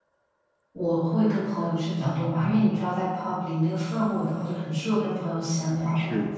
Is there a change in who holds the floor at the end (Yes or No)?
Yes